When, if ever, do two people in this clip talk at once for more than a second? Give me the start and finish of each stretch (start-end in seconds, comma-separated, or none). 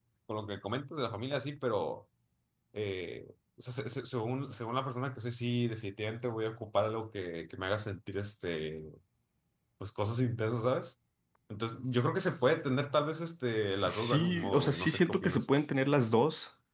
13.8-15.5